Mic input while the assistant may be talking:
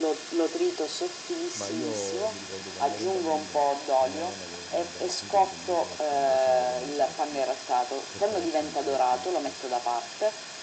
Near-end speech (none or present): present